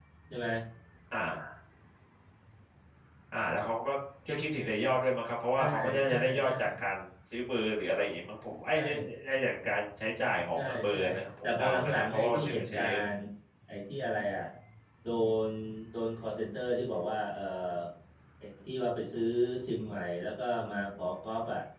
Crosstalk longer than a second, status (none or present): present